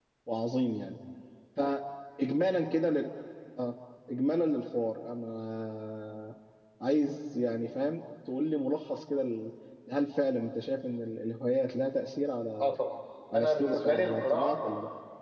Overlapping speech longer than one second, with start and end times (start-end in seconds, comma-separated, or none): 13.3-14.6